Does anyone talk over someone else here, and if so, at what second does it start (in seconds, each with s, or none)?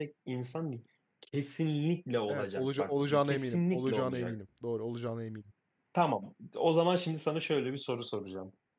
2.3 s